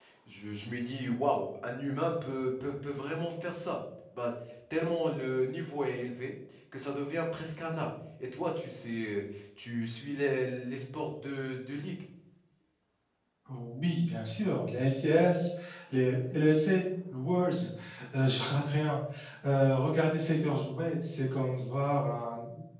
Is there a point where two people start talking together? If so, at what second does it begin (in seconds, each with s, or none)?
none